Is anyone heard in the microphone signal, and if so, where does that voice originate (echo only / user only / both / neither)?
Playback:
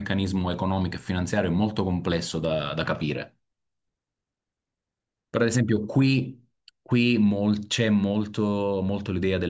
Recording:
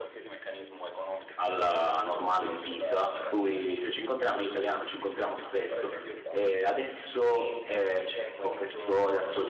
both